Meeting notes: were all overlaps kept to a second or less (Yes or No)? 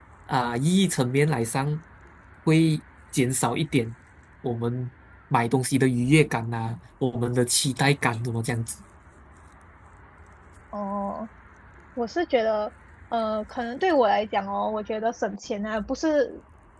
Yes